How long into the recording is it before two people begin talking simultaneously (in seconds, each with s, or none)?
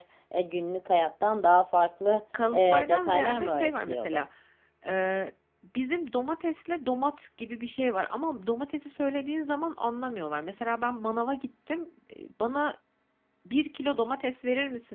2.3 s